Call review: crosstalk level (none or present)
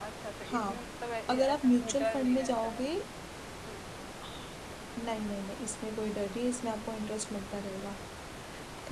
present